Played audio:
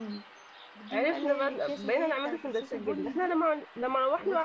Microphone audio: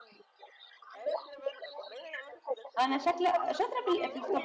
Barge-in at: 2.8 s

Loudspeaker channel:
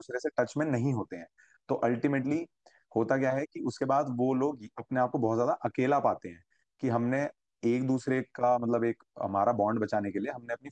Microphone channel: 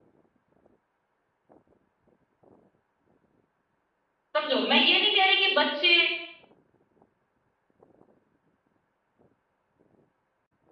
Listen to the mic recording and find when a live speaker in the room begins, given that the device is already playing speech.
4.4 s

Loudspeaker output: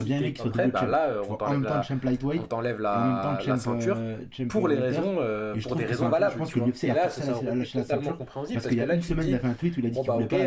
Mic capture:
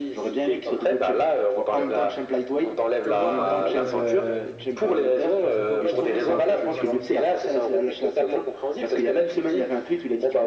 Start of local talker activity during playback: 3.0 s

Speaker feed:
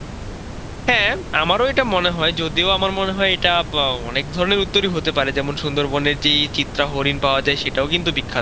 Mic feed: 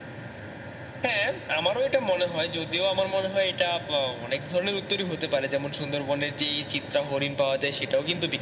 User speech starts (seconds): none

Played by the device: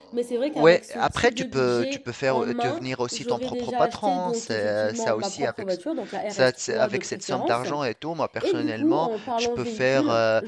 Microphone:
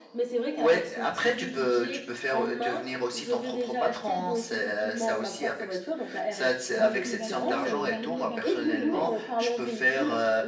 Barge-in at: 6.8 s

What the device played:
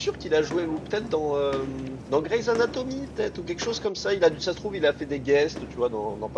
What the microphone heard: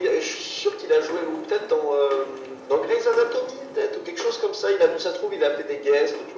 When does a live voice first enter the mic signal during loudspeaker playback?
none

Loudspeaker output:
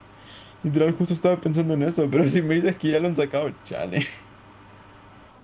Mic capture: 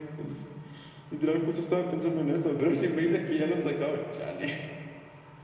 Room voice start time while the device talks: none

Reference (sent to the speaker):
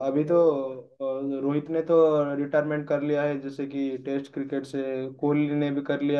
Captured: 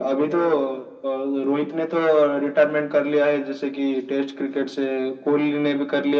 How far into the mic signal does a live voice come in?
none

